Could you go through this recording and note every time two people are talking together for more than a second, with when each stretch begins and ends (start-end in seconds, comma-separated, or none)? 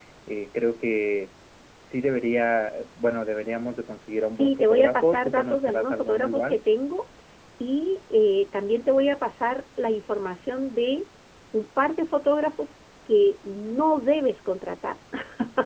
4.3-6.6